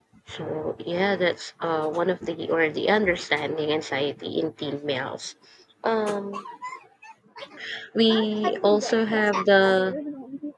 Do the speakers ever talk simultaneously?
Yes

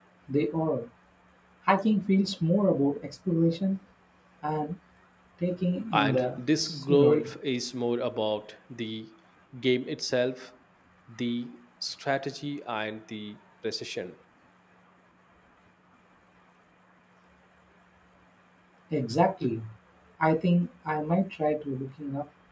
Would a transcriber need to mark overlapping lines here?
Yes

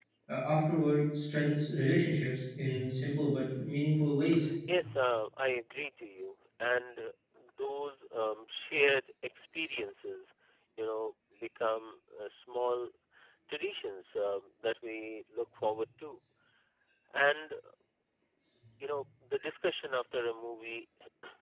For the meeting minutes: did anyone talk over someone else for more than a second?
No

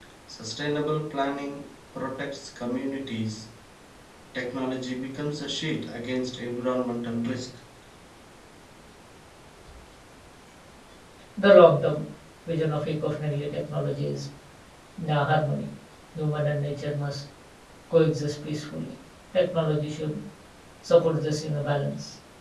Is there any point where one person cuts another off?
No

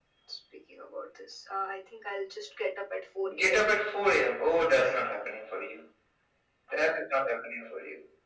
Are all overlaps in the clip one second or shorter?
Yes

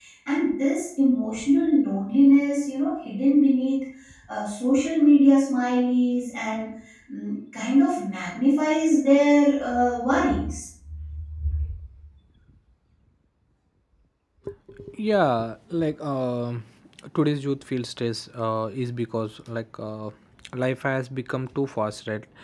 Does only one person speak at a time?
Yes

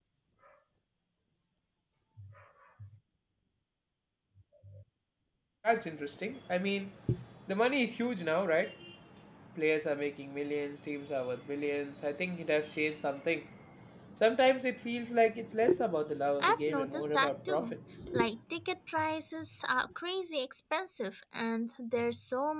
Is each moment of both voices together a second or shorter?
No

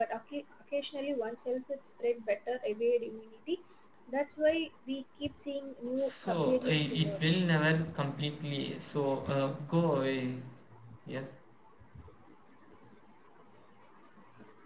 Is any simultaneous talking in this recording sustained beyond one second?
Yes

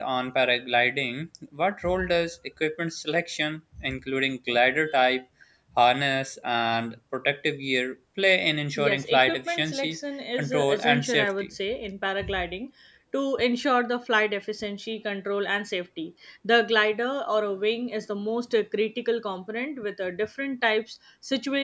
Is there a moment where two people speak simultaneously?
Yes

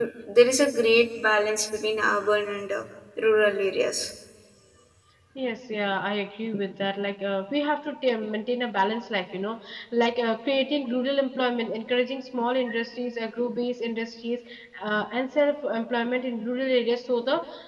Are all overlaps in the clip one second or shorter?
Yes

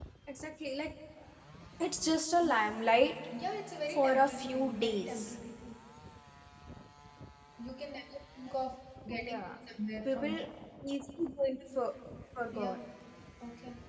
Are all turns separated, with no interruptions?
No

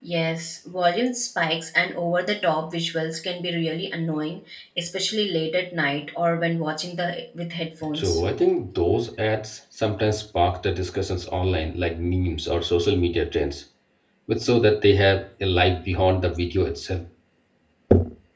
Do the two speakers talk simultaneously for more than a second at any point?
No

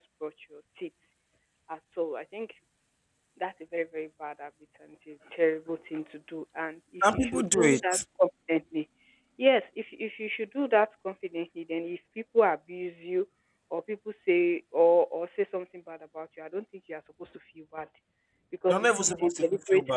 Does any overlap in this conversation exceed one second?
Yes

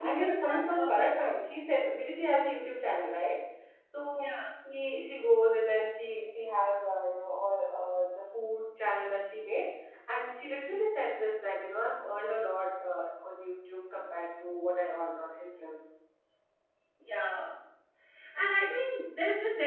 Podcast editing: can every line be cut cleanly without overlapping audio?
No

